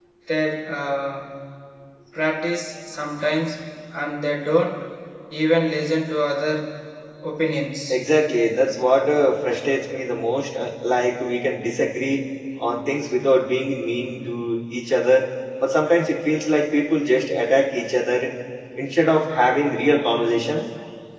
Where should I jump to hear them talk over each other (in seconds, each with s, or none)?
none